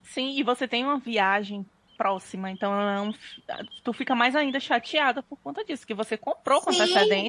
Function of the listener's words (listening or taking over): taking over